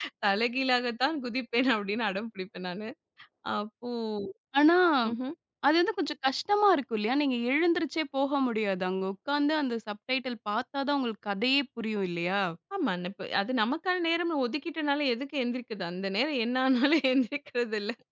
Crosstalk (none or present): none